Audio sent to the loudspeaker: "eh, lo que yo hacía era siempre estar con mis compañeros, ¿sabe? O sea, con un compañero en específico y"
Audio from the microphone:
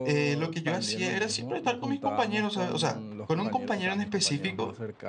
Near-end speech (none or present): present